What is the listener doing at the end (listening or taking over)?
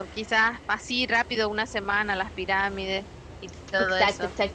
taking over